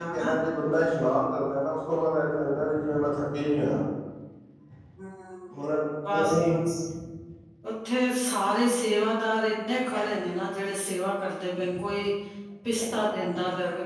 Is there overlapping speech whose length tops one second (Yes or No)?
No